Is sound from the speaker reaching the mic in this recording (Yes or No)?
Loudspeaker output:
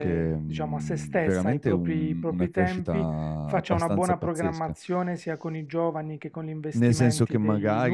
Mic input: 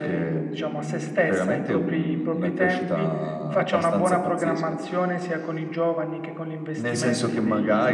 Yes